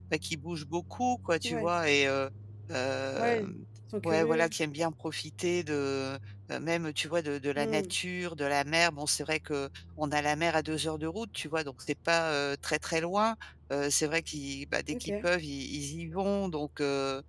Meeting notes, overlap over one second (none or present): none